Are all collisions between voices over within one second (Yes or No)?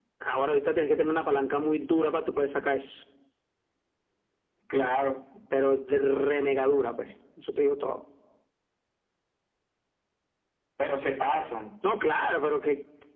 Yes